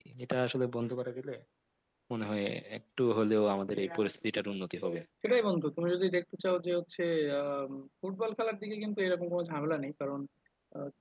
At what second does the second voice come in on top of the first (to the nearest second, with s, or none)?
none